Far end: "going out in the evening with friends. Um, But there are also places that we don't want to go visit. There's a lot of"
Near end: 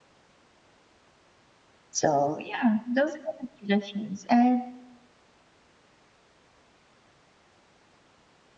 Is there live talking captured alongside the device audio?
Yes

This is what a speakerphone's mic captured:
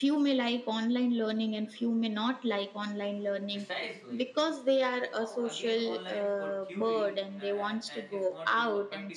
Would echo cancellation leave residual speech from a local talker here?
Yes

